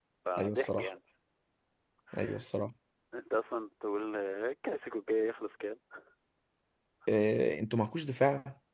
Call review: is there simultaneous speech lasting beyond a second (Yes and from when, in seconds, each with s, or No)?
No